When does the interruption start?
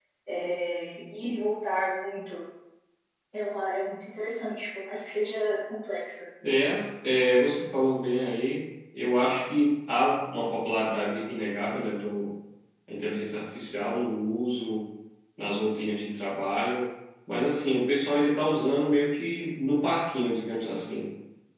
none

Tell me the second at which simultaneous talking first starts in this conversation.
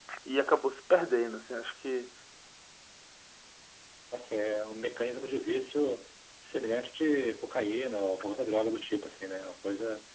none

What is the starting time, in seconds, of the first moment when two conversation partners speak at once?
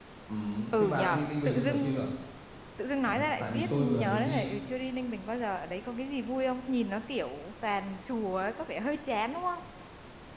1 s

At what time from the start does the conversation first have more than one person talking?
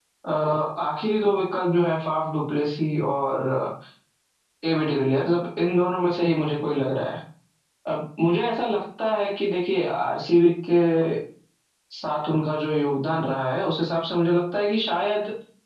none

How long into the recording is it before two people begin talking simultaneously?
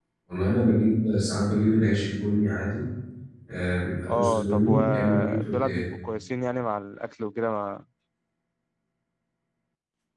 4 s

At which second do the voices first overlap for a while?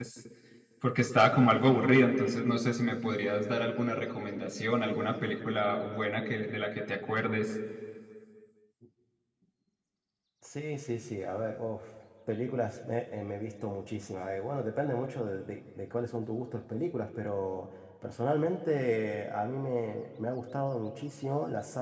none

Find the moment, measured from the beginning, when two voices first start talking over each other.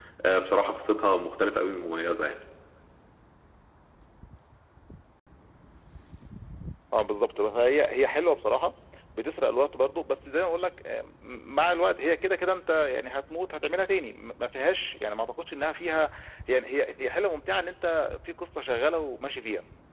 none

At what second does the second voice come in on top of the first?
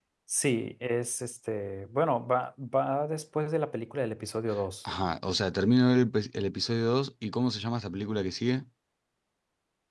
none

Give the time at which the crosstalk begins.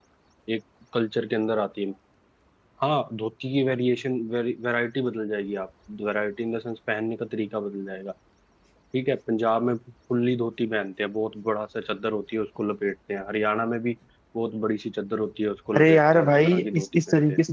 16 s

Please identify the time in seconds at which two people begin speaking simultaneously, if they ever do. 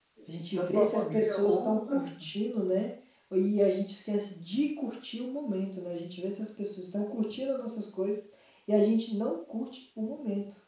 1 s

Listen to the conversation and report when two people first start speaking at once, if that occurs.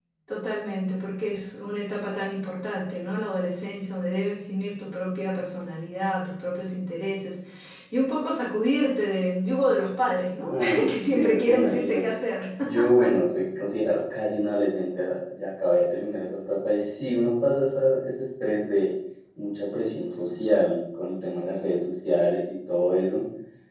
10 s

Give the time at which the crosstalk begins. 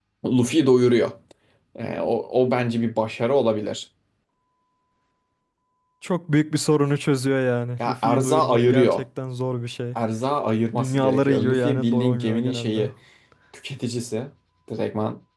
8 s

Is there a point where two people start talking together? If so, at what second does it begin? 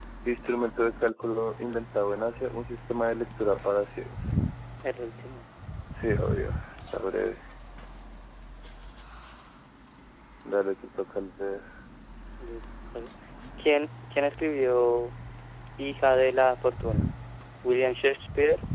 none

